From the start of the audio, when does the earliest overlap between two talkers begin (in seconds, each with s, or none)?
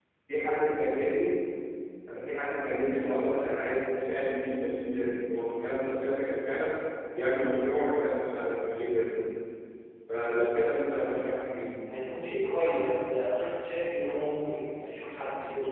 none